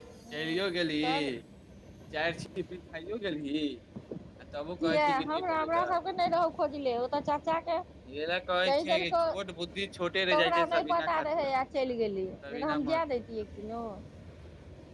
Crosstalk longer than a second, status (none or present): present